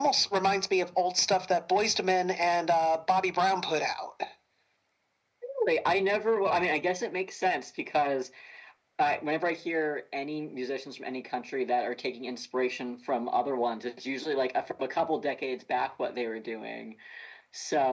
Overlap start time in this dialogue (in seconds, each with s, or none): none